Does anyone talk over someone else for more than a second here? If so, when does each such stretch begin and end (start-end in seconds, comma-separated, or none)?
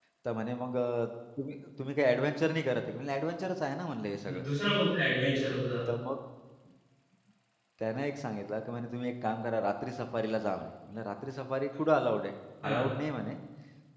none